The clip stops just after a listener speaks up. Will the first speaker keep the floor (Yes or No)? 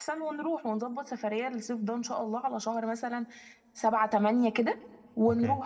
No